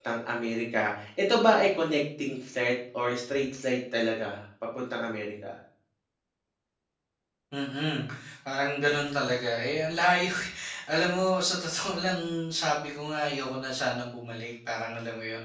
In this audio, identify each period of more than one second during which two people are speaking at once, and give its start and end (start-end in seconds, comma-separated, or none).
none